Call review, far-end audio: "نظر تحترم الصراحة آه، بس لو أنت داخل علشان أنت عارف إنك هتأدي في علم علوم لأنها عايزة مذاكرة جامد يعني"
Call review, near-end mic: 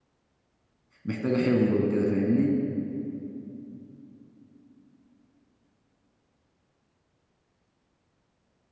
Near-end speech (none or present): present